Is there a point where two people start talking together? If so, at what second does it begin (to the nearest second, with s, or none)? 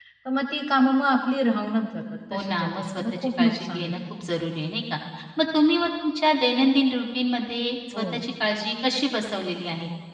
2 s